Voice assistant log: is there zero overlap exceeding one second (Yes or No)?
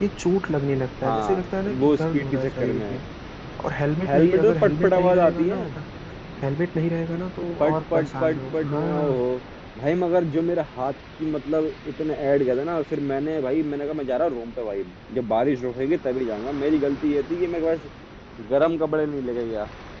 No